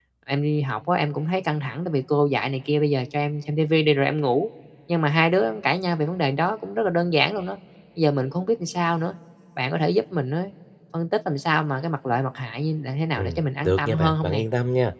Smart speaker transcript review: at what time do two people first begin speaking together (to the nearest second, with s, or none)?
13 s